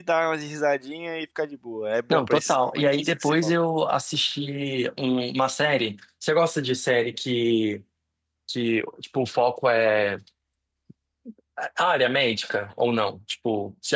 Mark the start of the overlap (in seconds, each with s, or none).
2.1 s